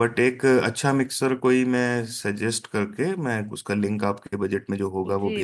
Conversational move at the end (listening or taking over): taking over